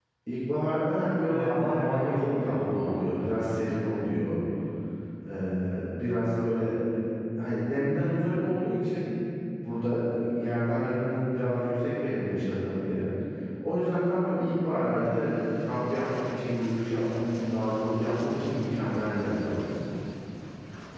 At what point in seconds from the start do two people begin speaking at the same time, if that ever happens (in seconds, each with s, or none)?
1.0 s